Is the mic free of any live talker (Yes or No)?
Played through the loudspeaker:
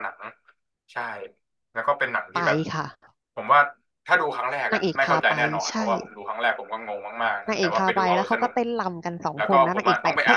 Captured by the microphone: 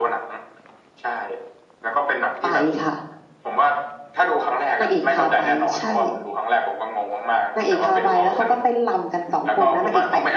Yes